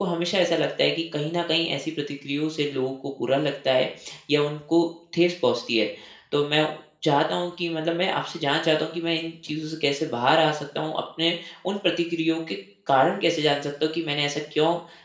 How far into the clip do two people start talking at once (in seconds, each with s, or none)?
none